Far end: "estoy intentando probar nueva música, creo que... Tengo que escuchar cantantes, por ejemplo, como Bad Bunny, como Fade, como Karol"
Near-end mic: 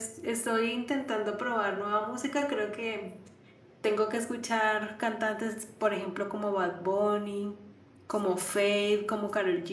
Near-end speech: none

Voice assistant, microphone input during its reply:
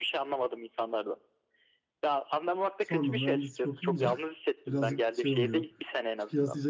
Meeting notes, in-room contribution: present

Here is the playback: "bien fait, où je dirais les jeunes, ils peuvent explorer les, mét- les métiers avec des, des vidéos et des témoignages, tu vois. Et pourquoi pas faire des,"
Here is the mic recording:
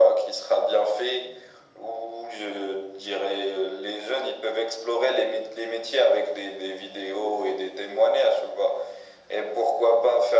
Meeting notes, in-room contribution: none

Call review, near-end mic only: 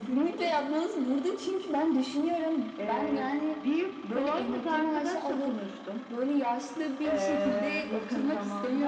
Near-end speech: none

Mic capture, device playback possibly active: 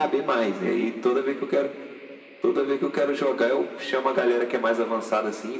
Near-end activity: none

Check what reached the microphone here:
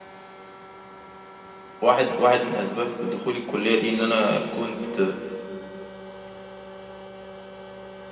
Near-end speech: present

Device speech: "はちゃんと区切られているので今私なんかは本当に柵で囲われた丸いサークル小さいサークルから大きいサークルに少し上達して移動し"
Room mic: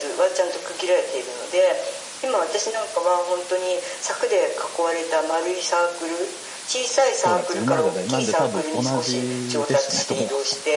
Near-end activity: present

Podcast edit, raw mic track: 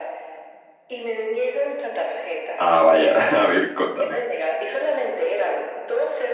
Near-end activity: present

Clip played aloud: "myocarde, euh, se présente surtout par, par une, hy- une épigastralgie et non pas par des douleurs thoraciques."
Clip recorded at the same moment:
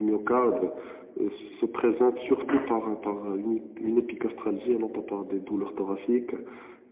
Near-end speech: present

